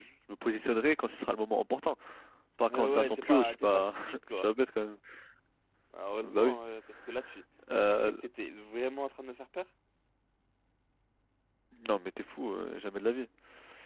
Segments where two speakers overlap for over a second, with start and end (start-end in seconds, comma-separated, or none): 2.7-4.4